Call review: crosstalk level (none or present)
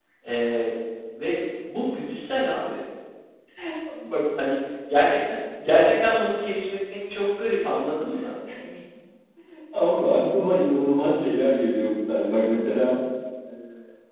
none